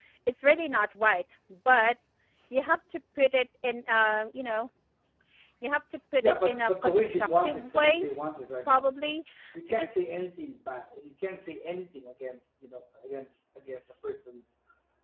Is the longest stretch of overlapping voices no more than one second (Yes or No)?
No